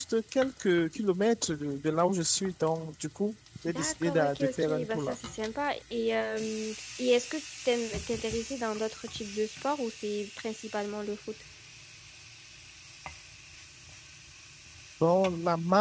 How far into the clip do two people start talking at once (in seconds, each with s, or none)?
3.7 s